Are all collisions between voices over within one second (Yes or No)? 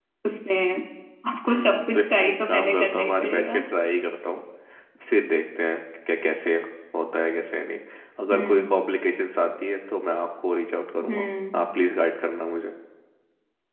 No